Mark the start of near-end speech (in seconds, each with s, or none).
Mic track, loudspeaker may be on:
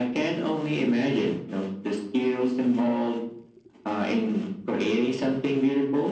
none